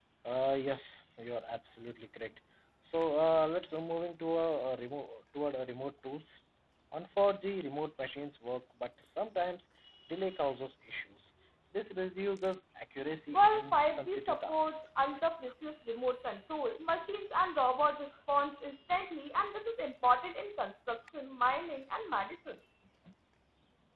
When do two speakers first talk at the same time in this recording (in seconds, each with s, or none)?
13.3 s